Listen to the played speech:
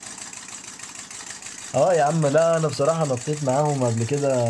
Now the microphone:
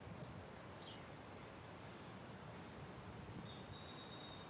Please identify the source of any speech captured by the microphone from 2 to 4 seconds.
neither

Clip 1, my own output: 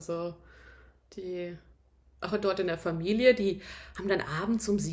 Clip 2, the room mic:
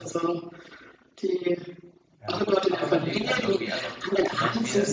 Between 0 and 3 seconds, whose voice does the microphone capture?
both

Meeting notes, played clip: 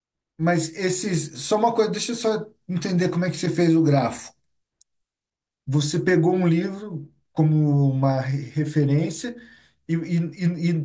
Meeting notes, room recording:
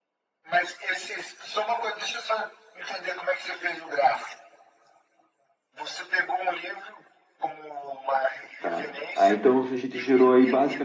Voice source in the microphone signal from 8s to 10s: both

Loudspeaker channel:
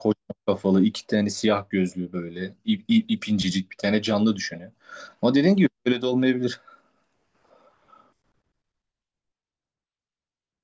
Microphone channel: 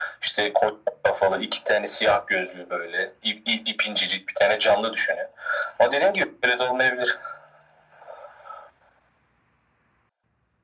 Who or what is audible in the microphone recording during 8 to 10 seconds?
neither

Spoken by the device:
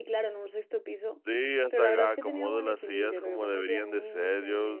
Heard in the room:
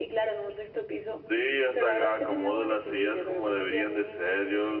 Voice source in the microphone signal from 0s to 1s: echo only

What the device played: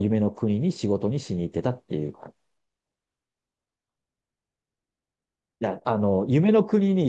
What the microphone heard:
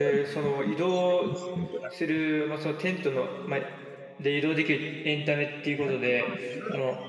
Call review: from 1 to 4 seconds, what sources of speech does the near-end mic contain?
both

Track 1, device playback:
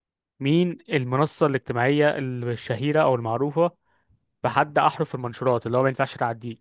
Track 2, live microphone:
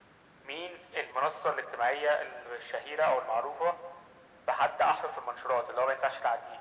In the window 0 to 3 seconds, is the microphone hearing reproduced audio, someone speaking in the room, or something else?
echo only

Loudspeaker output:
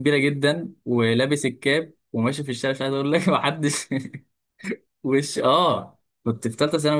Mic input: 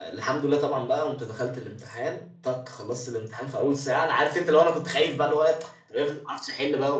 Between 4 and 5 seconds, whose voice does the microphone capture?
user only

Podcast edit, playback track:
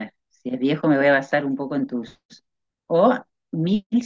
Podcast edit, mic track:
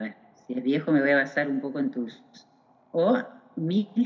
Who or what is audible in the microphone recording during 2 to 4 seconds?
echo only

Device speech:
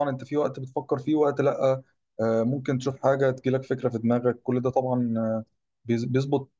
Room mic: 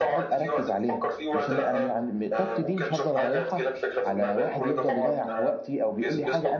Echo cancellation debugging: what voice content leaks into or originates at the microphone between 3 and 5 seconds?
both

